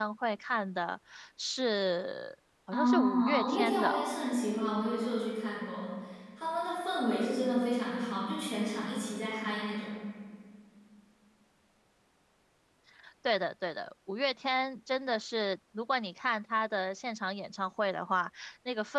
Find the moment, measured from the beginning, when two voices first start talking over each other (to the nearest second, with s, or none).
3 s